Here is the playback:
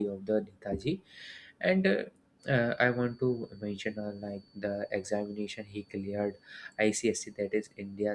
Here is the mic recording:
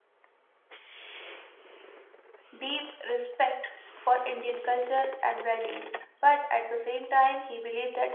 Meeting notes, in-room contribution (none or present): present